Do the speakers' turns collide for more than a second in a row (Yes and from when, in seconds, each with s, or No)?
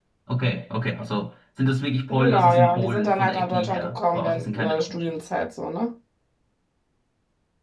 Yes, from 2.1 s